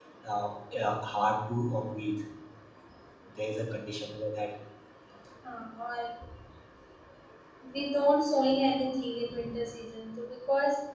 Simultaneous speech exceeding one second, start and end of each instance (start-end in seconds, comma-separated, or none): none